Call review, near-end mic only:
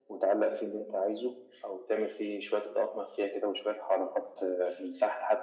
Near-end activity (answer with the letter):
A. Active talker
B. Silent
B